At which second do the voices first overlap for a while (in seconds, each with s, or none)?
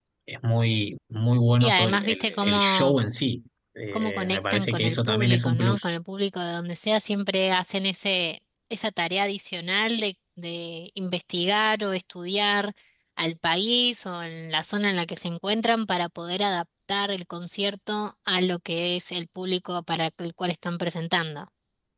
1.6 s